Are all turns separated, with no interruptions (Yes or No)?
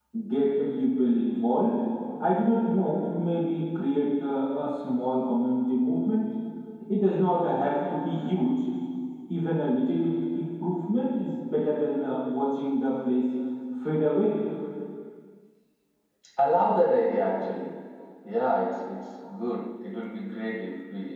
Yes